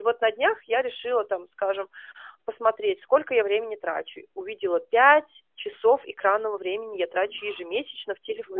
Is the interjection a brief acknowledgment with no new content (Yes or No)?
Yes